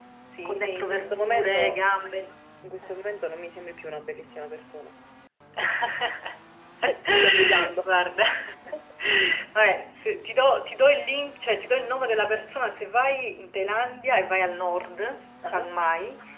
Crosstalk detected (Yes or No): Yes